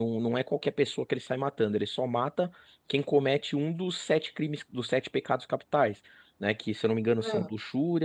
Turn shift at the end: No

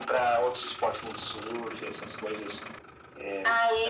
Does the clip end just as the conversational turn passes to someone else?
Yes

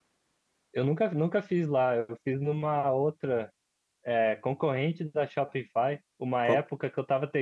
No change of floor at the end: Yes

